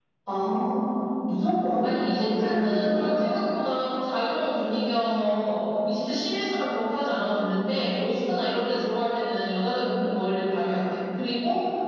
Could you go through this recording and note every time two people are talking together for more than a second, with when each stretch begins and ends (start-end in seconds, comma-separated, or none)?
1.8-3.1